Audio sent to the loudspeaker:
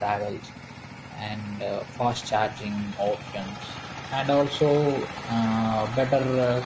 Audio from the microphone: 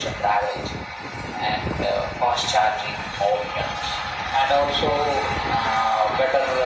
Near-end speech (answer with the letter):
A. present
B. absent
B